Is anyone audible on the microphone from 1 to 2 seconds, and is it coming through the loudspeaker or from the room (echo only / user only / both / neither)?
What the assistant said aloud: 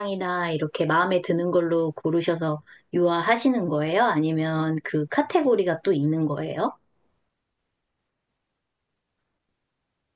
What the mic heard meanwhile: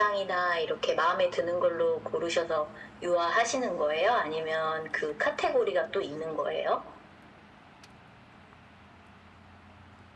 echo only